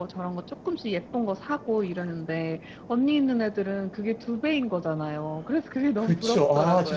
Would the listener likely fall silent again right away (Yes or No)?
No